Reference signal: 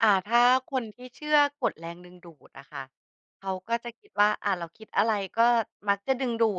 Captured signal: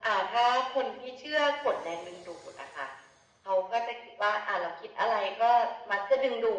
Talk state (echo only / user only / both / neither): echo only